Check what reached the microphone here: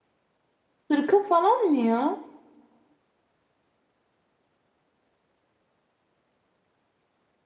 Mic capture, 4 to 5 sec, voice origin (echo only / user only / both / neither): neither